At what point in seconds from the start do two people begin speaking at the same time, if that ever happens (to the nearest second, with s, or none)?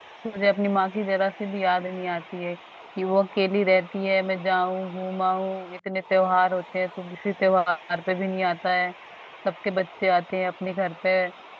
none